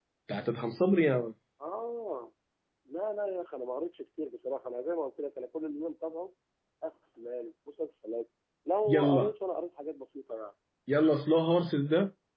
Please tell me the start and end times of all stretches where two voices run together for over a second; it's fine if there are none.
none

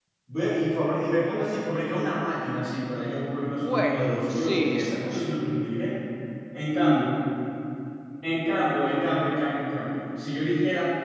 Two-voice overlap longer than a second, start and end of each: 3.6-5.3

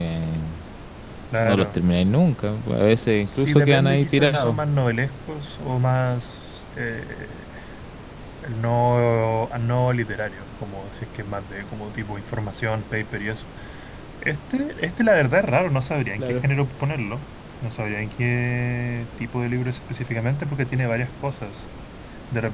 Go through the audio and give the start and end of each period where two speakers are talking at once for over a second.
3.2-4.6

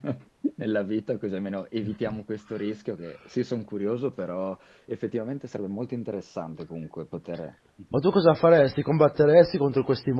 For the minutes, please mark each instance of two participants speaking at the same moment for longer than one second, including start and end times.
none

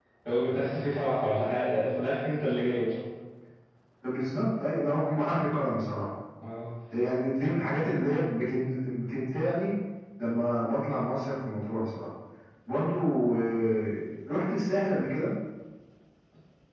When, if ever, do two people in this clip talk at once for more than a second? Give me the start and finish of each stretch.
none

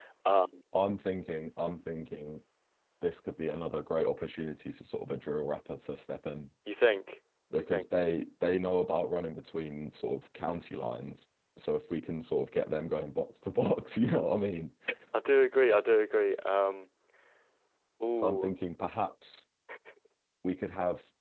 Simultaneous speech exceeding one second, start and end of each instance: none

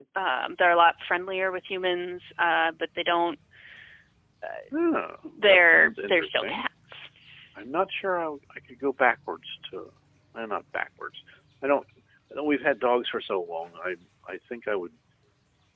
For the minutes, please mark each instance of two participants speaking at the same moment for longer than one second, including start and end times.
5.4-6.7

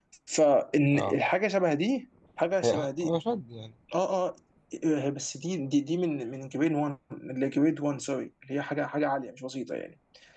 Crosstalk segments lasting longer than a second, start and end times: none

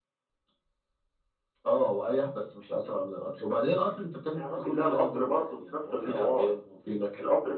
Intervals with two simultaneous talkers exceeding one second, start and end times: 4.3-6.5

